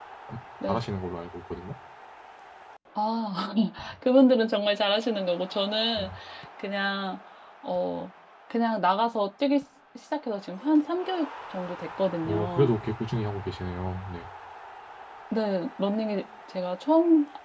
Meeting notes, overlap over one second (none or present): none